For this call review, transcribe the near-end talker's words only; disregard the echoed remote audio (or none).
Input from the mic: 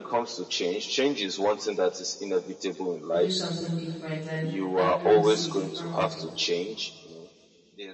do something different. And that's when you see a different result.